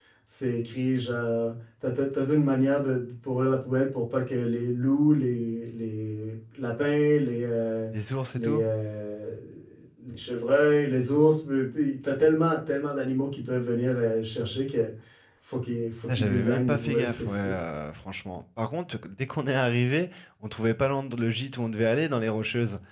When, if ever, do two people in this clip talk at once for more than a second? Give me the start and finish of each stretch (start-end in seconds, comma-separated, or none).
16.2-17.4